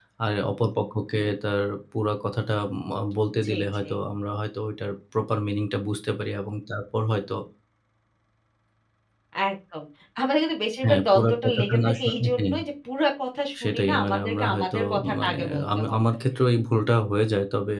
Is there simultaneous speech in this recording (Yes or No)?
Yes